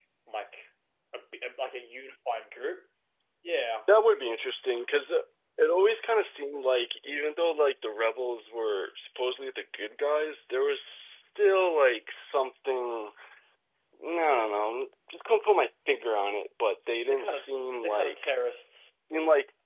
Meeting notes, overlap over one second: none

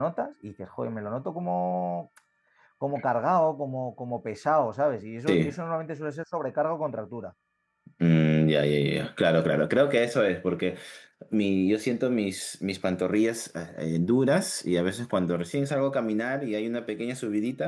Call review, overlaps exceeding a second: none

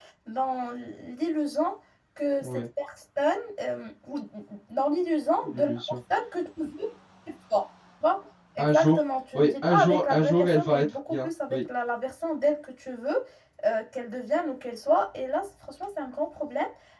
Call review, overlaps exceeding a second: present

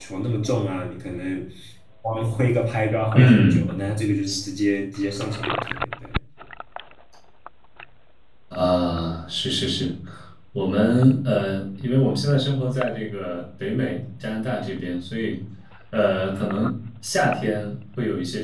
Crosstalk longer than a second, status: none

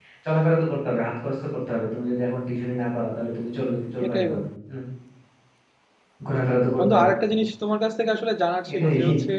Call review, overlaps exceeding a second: none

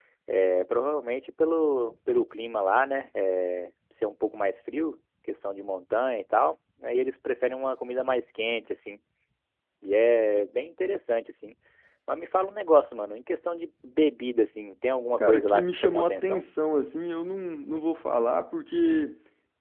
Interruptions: present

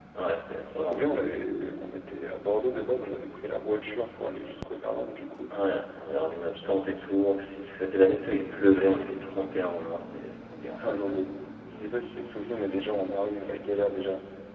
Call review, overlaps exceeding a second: none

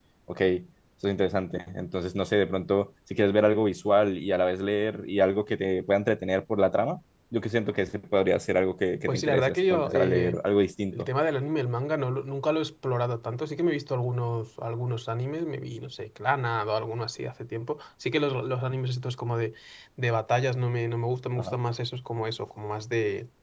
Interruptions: present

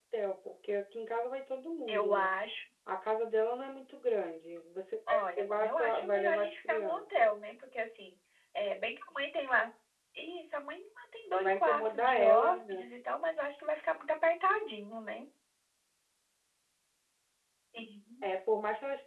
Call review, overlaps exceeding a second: present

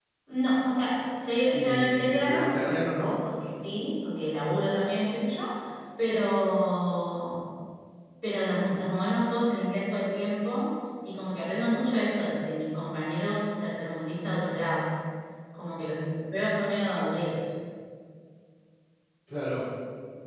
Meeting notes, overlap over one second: present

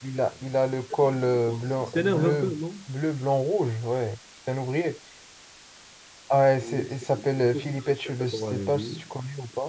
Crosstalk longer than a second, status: present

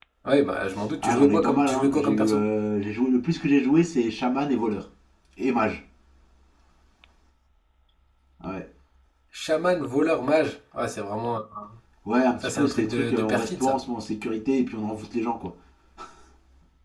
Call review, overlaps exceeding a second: present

